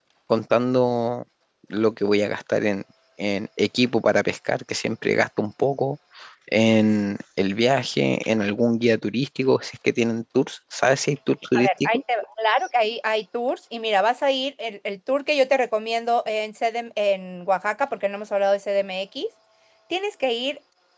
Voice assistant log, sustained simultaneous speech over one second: none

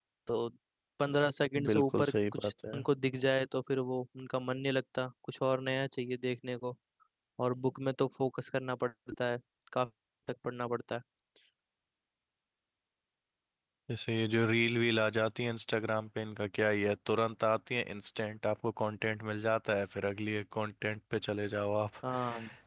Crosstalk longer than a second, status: present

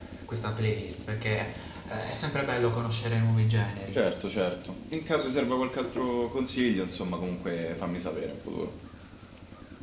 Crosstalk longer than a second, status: none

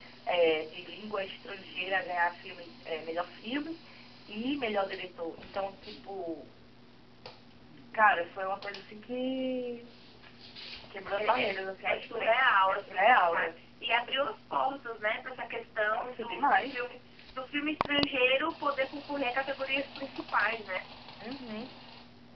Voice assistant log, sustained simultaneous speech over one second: present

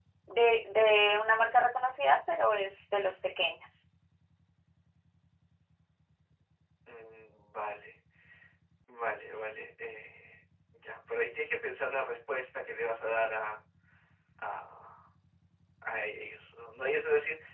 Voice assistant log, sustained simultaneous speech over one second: none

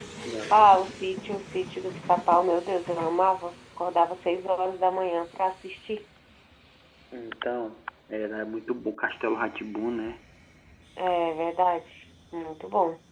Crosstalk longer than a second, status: none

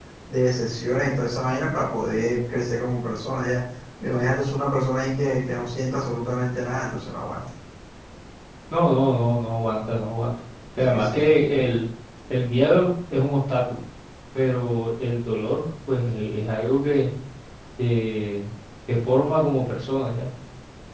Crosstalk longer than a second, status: none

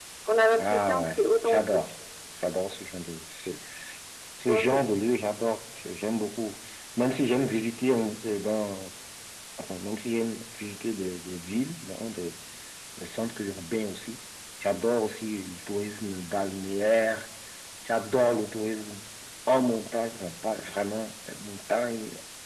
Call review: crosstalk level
present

